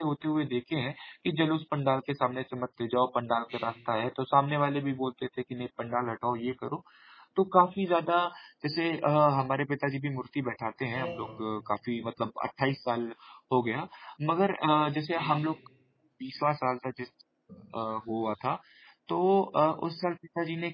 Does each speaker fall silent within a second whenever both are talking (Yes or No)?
Yes